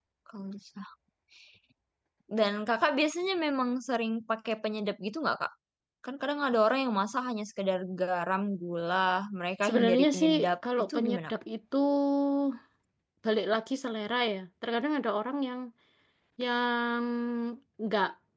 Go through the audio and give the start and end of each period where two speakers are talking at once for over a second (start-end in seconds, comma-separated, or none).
9.6-11.4